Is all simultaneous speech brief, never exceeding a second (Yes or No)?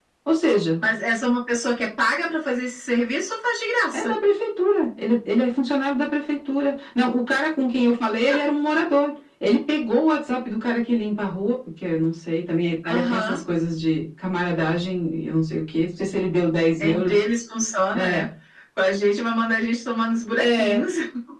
Yes